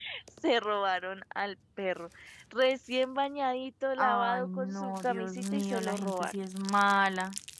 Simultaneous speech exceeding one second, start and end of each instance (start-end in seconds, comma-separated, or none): 4.0-6.3